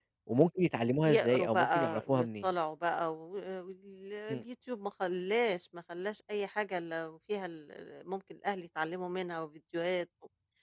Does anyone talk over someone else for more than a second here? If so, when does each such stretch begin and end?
1.0-2.5

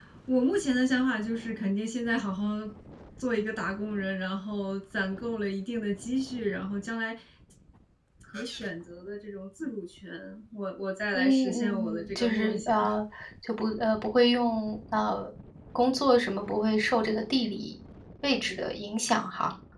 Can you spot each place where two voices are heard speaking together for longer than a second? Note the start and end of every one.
11.1-12.8

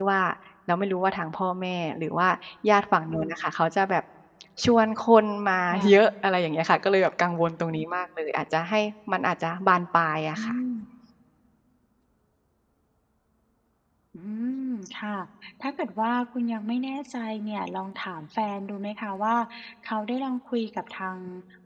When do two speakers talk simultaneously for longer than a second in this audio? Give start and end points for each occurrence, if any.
none

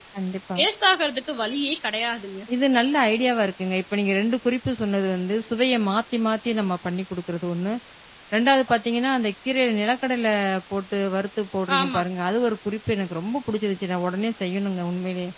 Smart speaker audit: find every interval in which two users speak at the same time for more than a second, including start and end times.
none

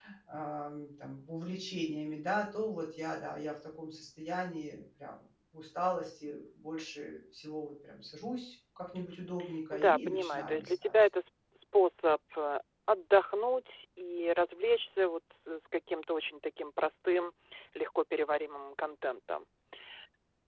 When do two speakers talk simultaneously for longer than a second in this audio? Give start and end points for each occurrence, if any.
9.7-10.9

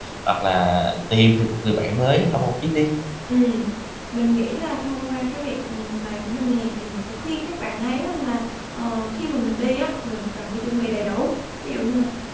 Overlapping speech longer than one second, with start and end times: none

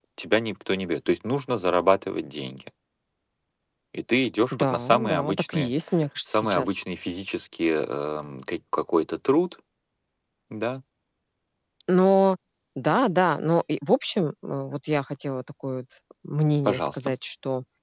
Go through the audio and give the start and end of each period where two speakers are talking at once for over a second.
4.5-5.7

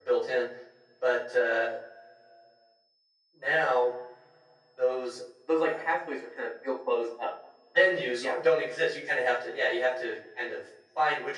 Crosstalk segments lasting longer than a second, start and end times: none

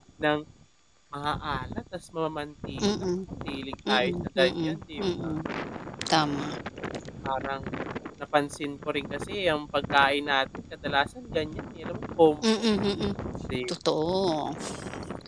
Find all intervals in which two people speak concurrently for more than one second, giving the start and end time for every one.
3.9-5.3

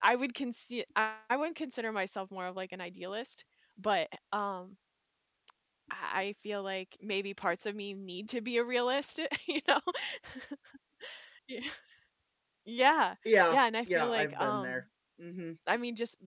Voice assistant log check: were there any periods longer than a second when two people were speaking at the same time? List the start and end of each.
13.5-14.8

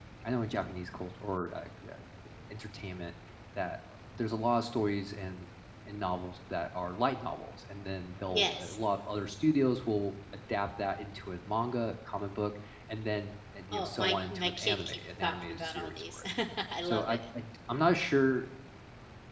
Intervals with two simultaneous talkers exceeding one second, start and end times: 13.7-16.2

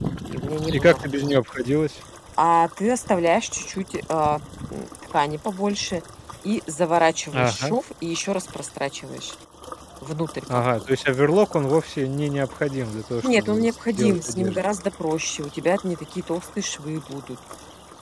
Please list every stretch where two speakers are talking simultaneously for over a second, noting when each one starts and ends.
13.2-14.6

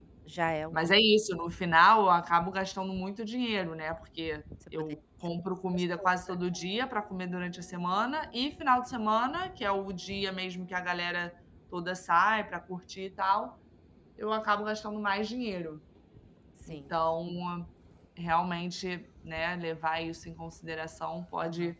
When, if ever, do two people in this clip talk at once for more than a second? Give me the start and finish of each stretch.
none

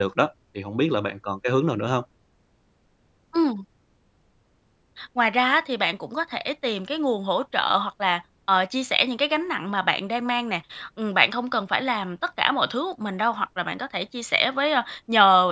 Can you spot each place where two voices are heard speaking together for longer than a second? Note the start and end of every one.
none

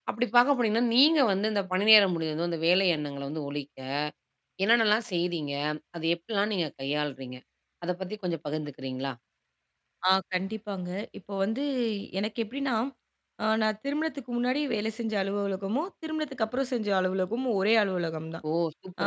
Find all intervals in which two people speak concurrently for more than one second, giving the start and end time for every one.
none

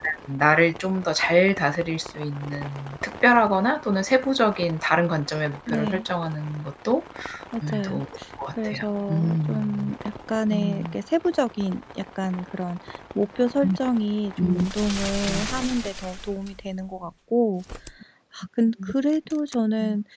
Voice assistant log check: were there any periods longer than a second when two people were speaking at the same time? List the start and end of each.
8.6-9.9

